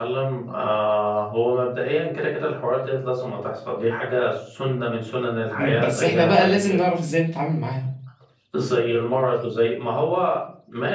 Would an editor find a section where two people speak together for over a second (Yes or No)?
Yes